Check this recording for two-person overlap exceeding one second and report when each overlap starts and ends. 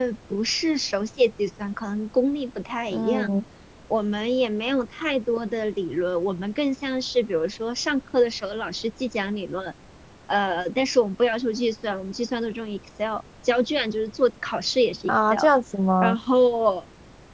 none

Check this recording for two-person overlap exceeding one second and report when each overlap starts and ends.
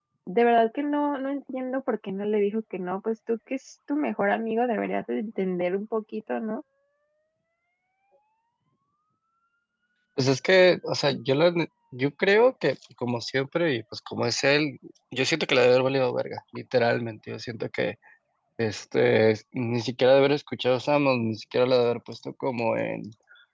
none

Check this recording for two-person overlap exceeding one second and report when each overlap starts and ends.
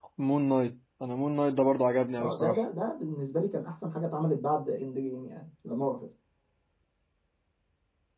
none

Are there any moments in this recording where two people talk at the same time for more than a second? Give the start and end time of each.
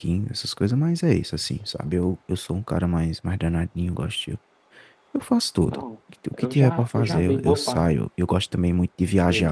6.4-7.9

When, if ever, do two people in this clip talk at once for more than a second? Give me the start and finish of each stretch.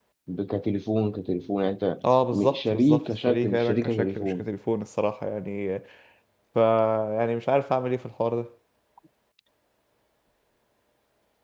2.3-4.4

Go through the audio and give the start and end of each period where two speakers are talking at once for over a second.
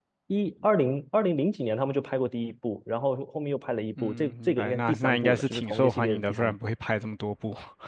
4.0-6.5

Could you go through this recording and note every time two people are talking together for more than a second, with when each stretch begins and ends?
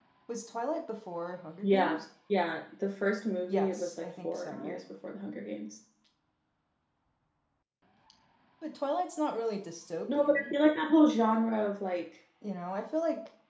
3.5-4.8

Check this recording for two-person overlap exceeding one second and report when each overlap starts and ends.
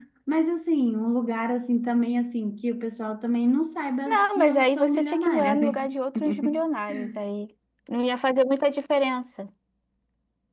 4.1-5.9

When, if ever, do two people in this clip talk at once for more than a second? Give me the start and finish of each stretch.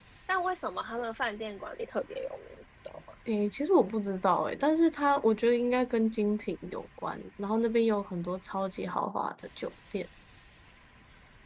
none

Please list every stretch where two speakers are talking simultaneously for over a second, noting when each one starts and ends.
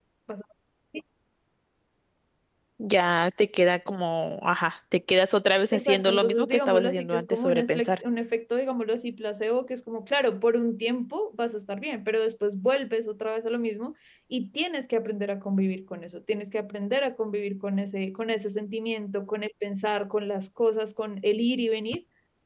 5.7-7.9

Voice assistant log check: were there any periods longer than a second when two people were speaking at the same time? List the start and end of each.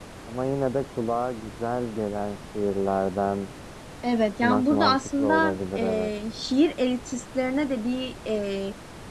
4.4-6.1

